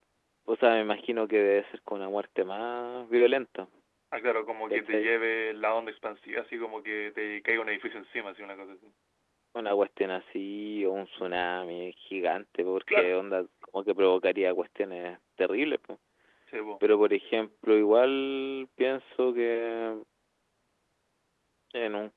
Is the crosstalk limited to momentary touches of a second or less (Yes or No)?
Yes